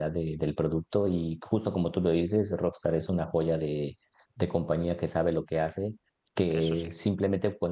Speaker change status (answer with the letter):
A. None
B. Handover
A